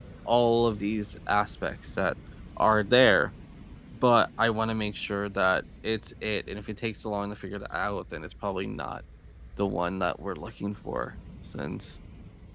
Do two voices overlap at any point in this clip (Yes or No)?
No